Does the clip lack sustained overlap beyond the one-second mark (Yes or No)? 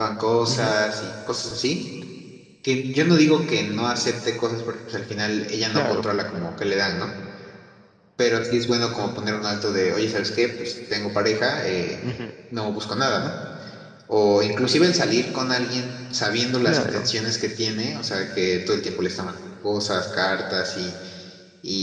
Yes